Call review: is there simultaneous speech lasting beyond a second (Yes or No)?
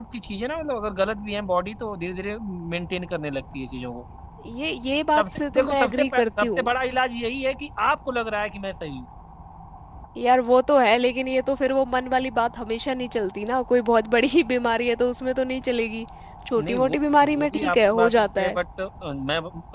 Yes